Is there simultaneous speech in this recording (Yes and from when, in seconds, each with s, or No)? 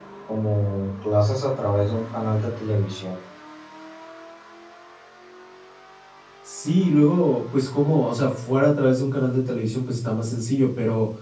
No